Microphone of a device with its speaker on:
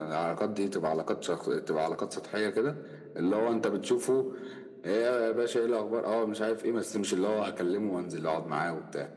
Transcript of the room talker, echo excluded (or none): none